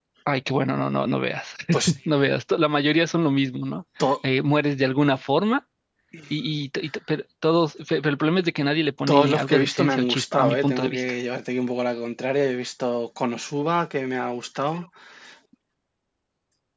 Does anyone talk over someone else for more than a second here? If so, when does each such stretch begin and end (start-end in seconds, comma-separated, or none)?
9.1-11.0